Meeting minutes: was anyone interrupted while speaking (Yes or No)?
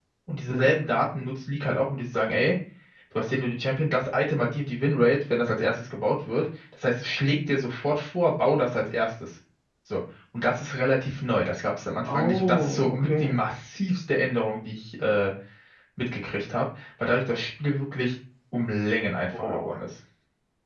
Yes